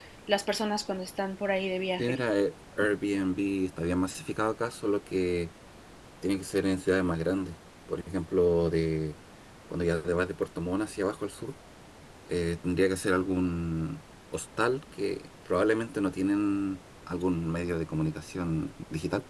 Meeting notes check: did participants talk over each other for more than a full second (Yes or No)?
No